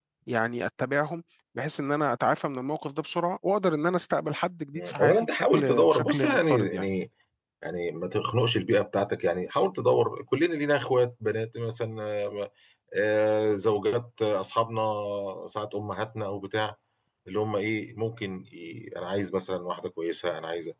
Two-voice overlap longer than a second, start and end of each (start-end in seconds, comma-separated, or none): 4.8-6.9